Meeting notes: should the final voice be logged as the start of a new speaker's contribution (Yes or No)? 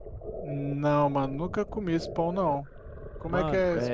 Yes